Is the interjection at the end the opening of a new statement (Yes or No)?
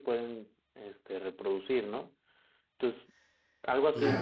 No